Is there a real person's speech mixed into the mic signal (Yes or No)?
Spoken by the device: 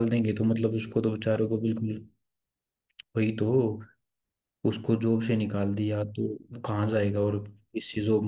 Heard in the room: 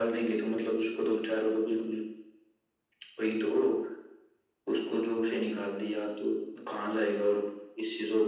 No